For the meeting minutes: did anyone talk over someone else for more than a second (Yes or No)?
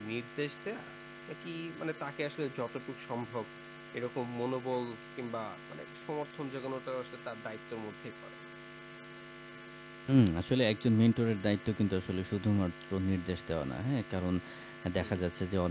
No